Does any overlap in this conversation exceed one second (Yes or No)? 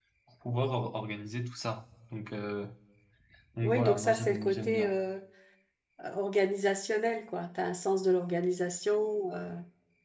Yes